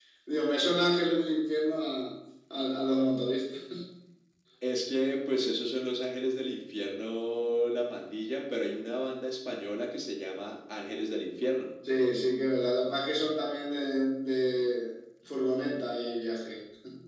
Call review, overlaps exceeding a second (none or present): none